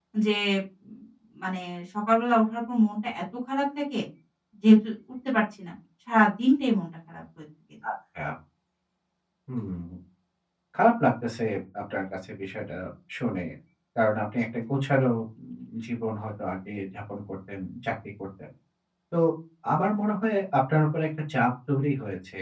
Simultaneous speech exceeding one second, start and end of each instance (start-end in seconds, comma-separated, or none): none